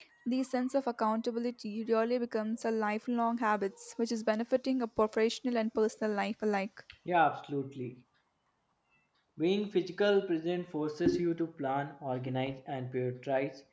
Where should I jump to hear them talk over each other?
none

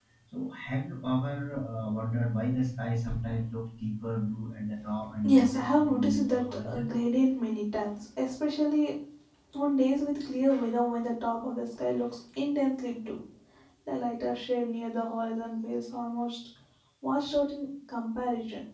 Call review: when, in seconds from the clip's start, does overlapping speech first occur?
5 s

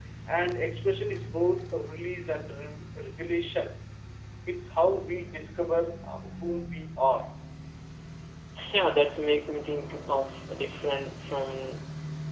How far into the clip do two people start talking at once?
none

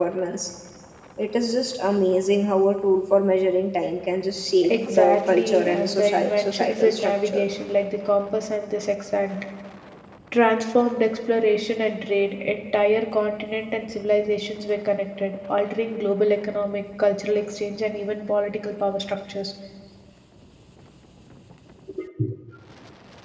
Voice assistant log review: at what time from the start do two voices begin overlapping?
5 s

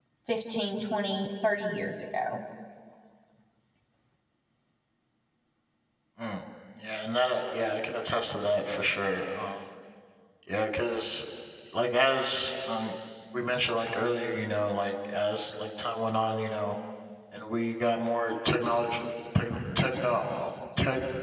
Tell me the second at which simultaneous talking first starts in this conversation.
none

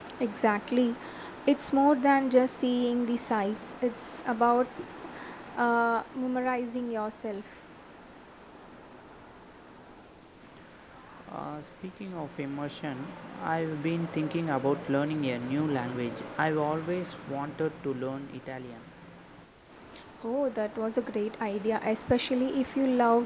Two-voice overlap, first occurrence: none

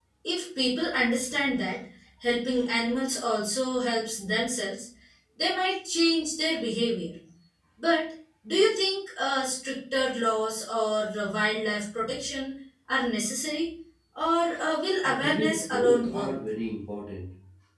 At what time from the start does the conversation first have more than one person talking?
15 s

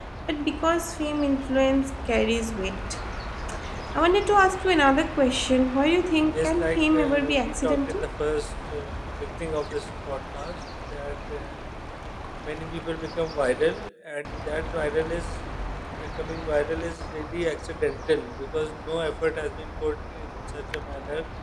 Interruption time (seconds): 6 s

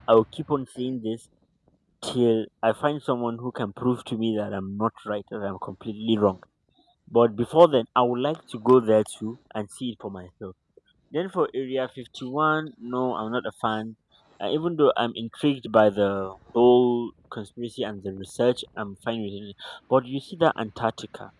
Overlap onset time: none

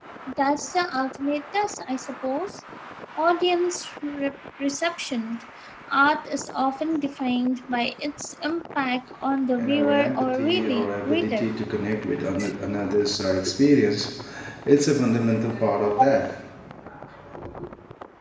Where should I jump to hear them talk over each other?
10 s

